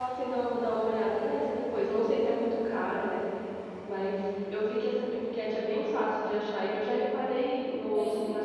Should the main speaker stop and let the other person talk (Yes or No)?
No